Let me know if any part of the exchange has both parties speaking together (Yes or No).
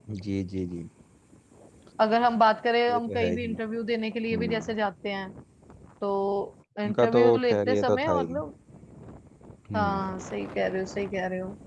Yes